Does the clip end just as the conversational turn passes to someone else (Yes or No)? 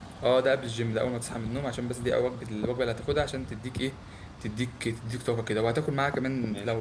No